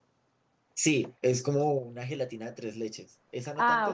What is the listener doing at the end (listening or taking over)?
taking over